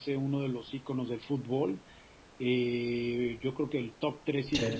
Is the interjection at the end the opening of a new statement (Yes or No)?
No